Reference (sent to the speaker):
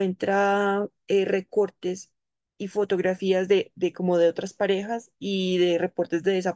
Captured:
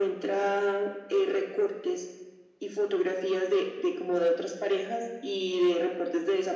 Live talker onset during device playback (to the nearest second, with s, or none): none